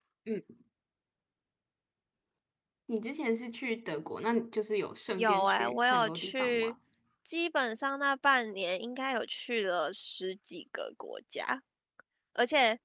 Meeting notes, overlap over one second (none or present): present